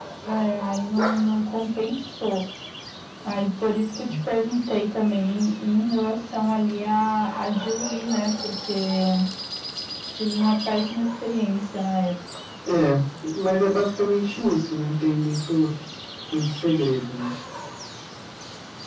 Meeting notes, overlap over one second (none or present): none